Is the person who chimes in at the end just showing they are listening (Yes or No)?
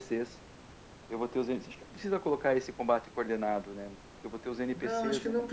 No